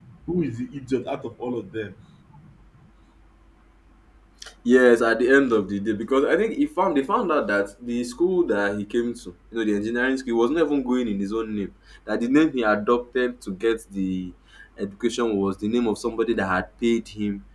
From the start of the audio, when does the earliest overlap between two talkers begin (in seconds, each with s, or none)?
none